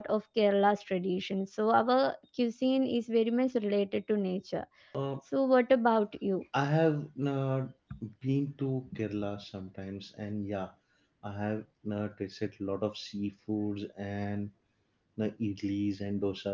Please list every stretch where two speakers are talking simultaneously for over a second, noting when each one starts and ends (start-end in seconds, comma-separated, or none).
none